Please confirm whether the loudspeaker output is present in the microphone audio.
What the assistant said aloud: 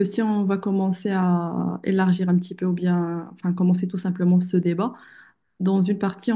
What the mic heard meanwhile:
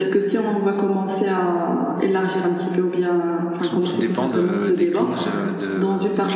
Yes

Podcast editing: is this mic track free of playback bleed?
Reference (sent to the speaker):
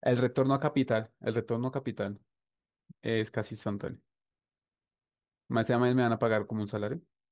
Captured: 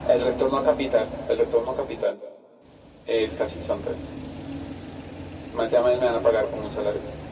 No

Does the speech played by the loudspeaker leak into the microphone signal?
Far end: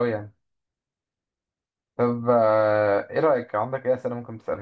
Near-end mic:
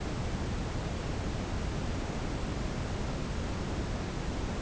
No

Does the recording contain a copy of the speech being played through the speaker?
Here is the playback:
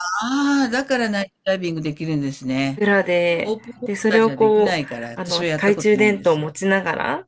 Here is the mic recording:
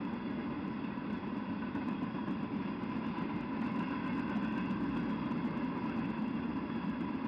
No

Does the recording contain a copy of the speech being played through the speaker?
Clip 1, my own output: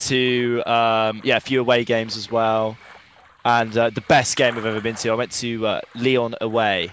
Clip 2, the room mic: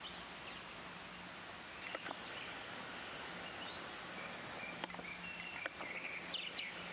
No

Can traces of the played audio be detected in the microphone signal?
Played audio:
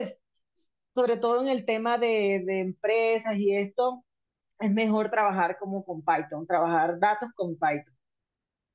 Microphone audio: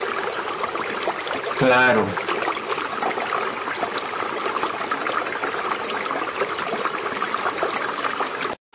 No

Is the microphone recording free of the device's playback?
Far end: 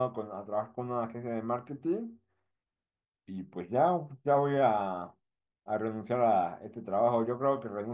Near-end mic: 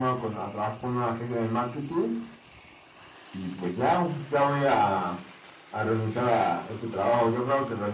No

